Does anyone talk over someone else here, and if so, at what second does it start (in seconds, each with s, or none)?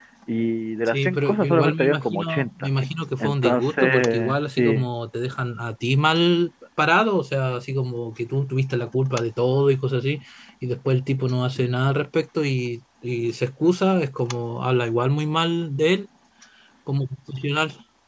0.9 s